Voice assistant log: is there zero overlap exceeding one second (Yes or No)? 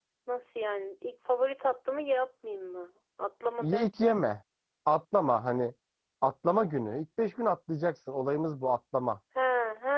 Yes